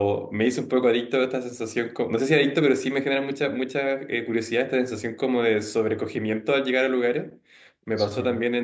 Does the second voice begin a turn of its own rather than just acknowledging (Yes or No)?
No